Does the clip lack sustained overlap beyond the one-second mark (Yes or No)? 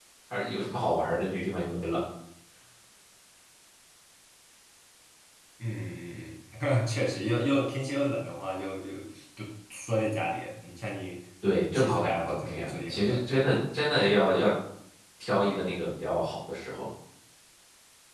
No